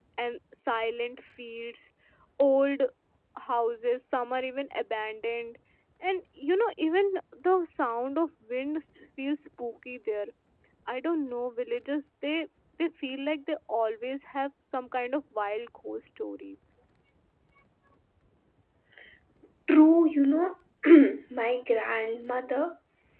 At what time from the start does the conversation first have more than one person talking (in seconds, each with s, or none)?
none